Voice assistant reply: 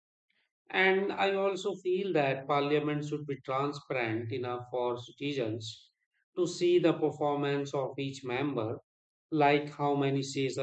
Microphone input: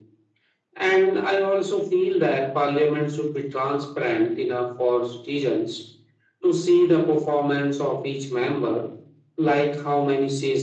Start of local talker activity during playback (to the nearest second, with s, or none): none